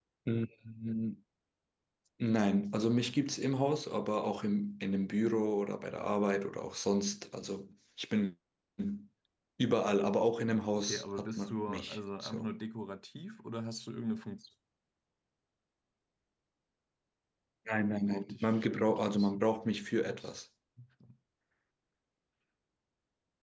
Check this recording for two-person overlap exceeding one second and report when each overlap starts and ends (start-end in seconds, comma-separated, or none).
10.8-12.5, 18.0-19.3